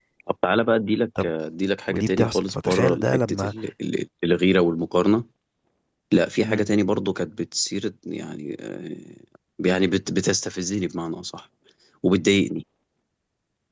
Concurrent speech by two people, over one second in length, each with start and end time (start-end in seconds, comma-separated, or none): 1.9-3.5